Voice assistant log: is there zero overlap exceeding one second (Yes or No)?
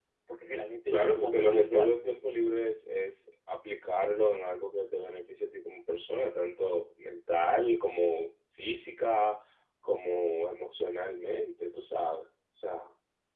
No